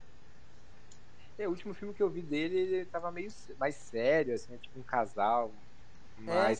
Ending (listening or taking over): listening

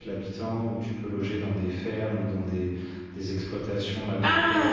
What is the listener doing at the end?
taking over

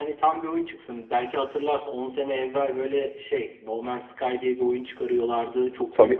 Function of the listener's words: listening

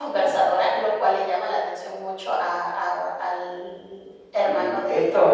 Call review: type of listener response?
taking over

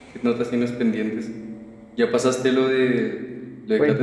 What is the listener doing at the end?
taking over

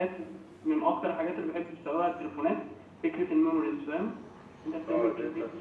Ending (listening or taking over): taking over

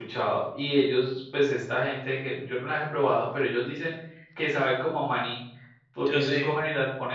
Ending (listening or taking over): listening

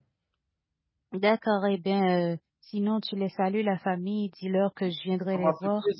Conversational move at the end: taking over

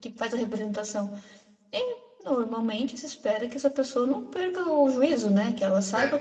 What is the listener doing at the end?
listening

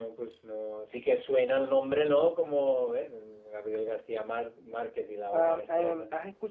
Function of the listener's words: taking over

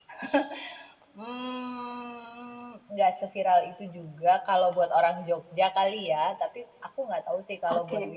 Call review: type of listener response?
listening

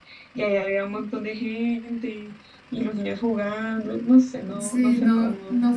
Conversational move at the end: taking over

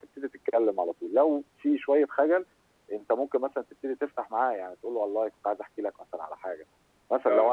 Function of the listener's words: listening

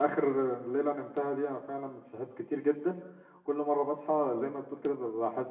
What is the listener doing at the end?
listening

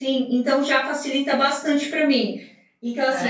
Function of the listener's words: listening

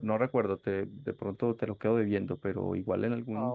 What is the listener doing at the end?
listening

